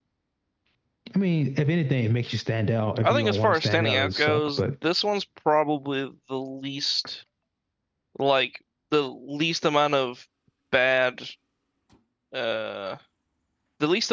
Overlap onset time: 3.0 s

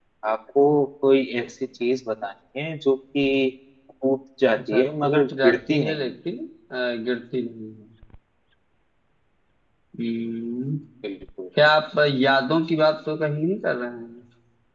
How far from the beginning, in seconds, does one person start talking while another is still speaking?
4.6 s

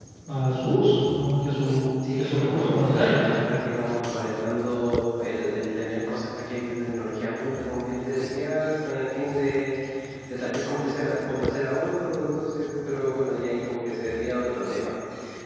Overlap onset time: 2.0 s

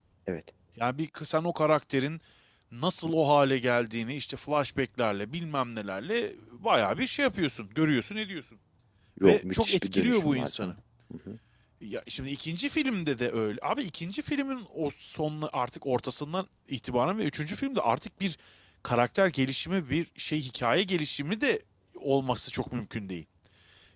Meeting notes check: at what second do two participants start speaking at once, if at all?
9.2 s

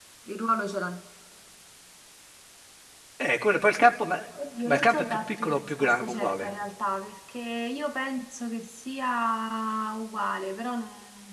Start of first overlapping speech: 4.7 s

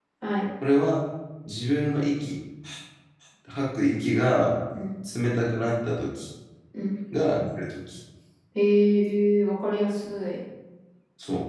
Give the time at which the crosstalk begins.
none

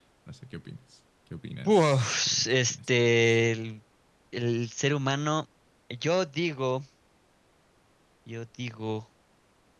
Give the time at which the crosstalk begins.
1.7 s

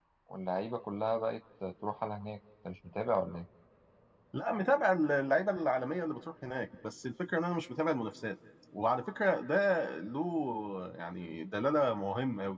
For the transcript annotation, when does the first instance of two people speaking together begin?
none

